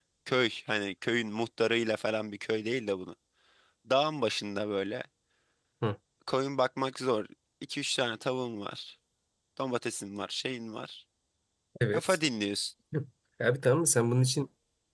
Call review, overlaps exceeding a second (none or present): none